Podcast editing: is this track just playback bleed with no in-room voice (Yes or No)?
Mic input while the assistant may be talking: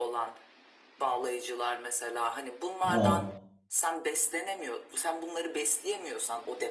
No